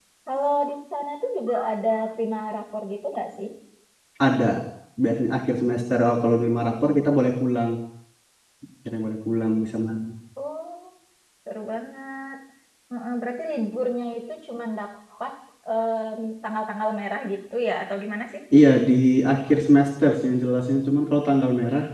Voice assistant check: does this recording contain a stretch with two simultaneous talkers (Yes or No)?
No